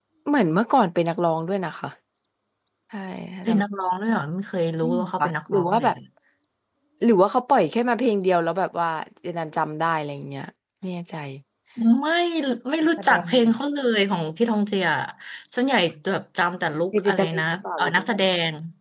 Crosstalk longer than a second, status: present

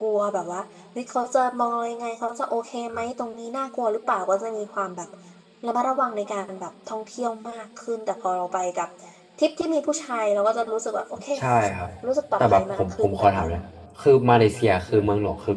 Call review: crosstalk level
present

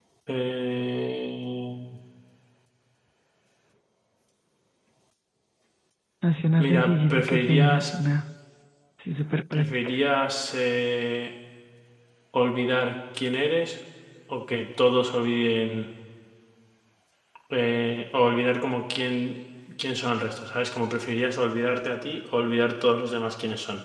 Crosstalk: present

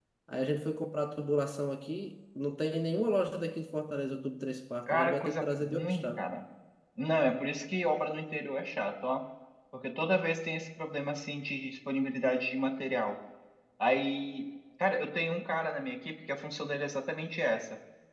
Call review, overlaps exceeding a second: present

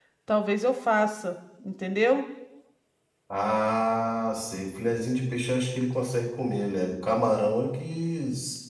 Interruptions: none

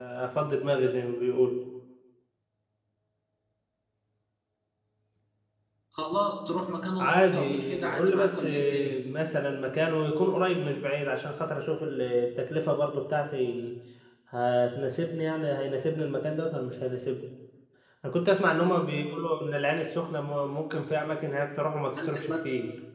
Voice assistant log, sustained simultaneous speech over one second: present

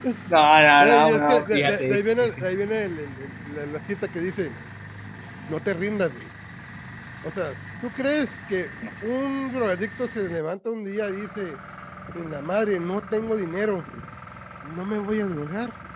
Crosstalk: present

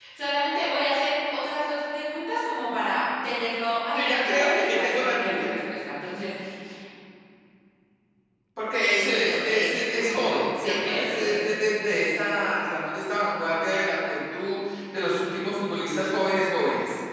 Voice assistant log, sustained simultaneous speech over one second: present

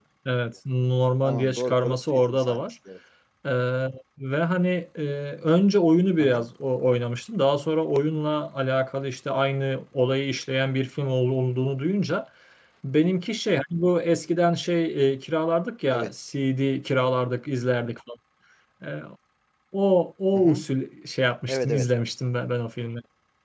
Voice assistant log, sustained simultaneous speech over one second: present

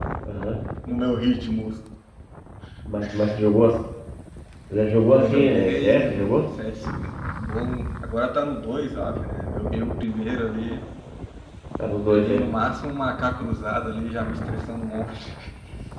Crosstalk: present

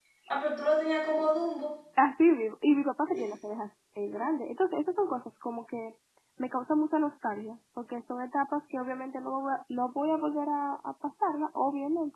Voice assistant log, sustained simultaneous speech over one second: none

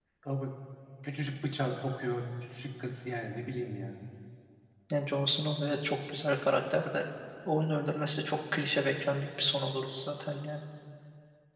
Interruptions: none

